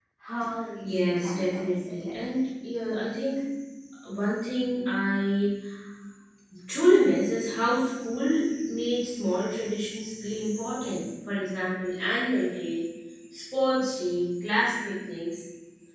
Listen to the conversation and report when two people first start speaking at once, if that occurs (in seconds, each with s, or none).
0.8 s